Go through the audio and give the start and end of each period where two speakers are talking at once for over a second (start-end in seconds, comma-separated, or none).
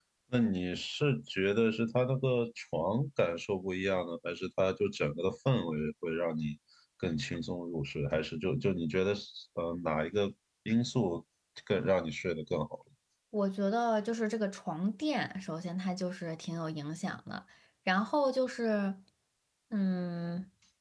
none